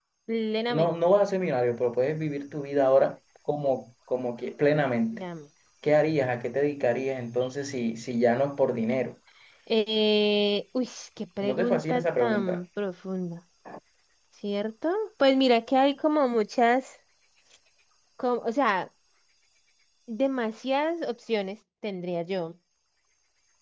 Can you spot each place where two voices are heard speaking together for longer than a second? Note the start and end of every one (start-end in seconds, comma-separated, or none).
11.4-12.6